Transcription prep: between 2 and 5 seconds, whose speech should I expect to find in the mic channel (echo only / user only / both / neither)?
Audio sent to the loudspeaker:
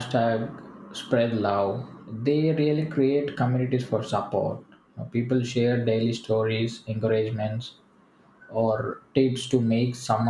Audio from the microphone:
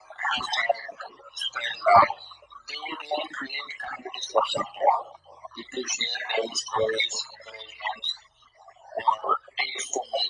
echo only